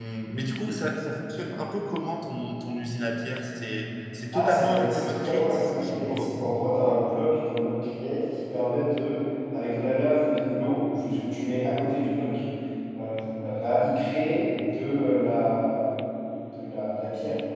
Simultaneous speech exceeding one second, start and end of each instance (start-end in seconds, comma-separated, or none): 4.3-6.2